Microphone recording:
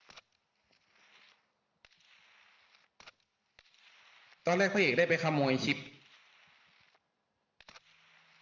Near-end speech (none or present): present